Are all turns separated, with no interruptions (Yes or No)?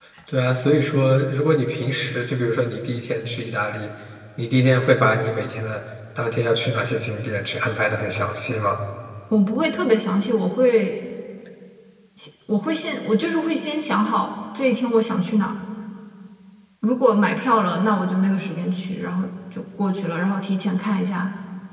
Yes